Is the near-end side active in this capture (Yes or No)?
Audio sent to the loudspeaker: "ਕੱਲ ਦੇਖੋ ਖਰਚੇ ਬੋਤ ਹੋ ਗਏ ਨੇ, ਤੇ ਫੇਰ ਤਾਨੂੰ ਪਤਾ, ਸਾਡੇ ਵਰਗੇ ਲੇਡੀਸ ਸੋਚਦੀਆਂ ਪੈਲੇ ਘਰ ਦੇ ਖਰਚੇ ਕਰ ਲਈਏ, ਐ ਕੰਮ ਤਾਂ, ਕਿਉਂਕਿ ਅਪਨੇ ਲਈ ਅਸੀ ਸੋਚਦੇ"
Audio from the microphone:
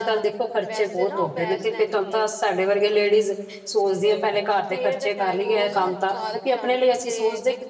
Yes